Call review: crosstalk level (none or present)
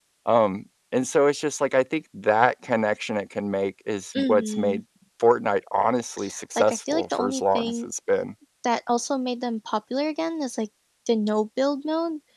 present